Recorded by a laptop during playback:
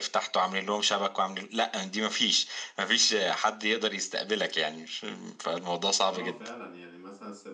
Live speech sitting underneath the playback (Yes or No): Yes